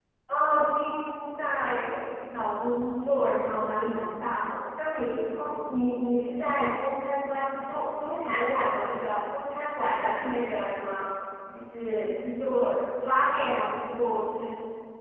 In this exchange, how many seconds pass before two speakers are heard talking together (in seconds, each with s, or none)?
none